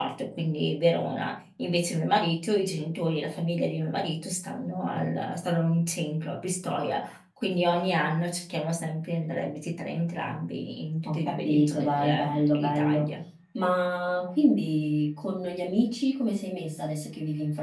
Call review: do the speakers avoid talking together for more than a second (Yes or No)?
No